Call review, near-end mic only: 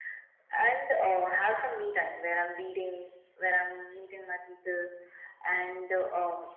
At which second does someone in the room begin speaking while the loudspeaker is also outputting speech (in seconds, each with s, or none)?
none